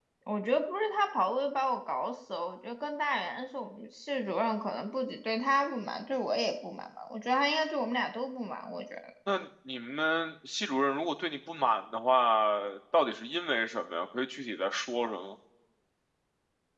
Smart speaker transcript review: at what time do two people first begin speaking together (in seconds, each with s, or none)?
none